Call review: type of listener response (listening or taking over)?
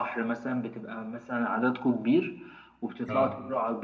listening